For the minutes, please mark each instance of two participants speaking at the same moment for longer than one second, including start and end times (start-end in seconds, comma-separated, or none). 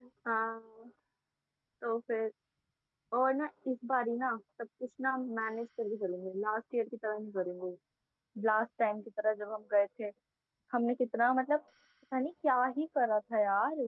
none